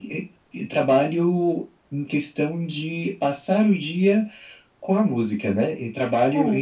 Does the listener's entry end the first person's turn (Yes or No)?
No